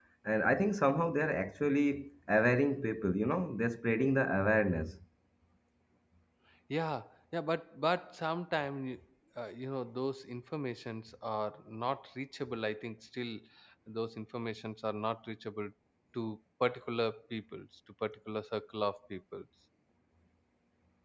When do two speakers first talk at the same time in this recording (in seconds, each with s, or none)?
none